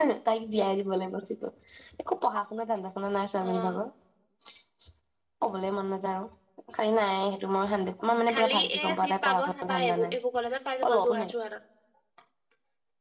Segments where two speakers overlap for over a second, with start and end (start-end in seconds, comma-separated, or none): 8.3-10.2